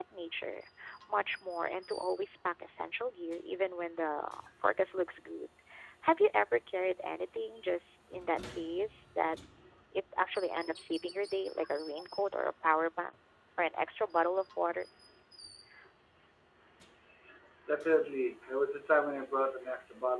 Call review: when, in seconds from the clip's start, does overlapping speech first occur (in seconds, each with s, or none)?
none